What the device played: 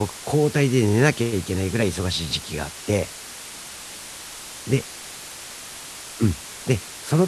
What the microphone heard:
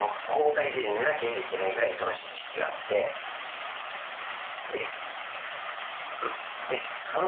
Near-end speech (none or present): none